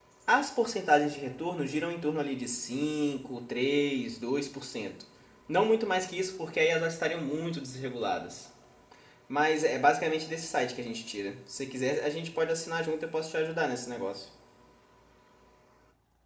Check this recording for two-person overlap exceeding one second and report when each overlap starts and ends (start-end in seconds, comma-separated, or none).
none